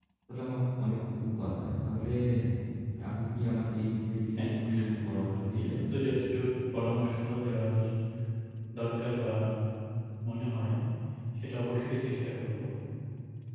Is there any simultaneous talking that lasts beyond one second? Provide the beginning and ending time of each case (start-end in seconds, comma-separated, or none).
4.4-5.8